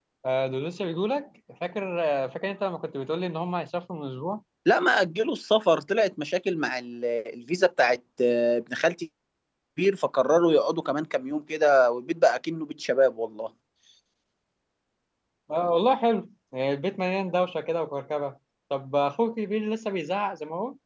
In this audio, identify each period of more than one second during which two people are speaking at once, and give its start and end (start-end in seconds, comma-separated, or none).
none